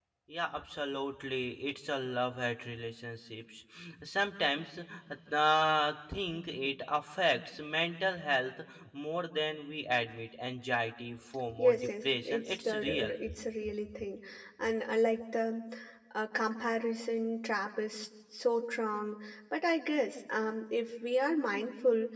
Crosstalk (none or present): present